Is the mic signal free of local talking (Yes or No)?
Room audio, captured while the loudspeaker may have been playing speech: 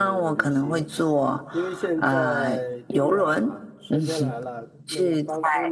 No